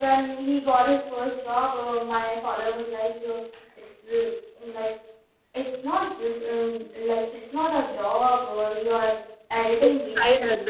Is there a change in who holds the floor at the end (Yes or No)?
Yes